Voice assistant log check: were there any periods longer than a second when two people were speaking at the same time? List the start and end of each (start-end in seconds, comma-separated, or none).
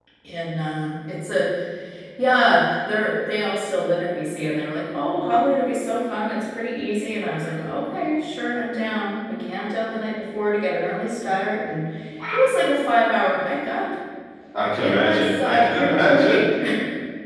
14.8-16.4